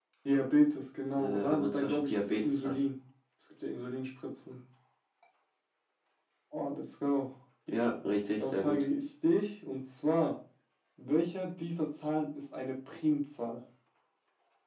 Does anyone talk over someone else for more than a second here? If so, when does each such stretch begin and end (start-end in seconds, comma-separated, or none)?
1.1-2.8